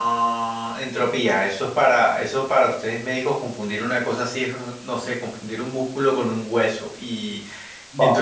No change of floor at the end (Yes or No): No